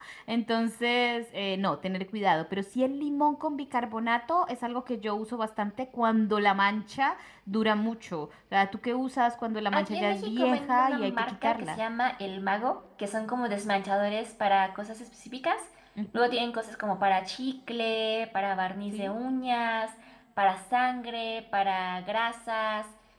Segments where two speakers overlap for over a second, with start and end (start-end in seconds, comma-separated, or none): 9.7-11.8